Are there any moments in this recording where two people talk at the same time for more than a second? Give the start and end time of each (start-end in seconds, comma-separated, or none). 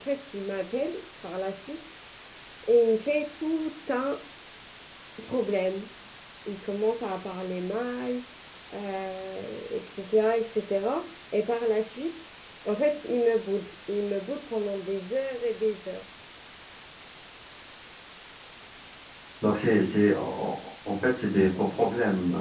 none